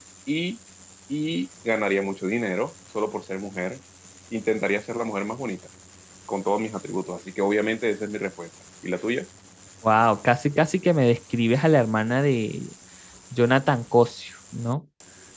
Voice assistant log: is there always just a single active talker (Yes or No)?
Yes